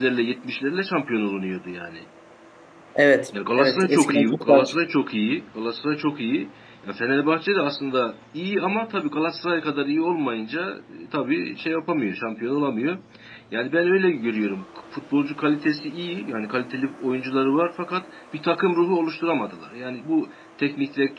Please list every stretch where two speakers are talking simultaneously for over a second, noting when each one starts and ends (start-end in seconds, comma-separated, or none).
3.6-4.8